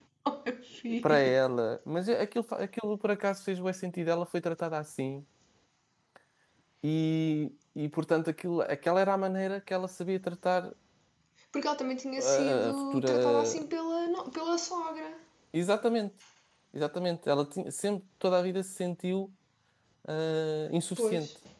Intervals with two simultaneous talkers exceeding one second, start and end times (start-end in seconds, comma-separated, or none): 12.2-13.6